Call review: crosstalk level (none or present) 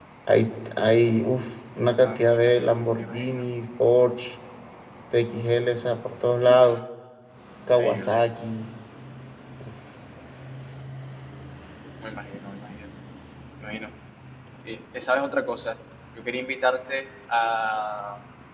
present